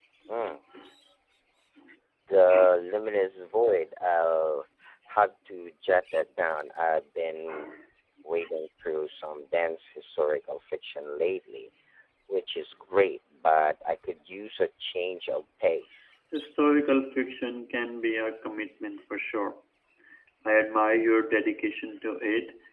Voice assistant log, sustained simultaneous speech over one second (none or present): none